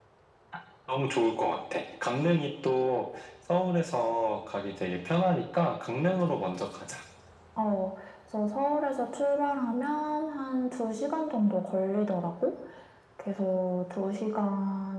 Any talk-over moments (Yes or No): No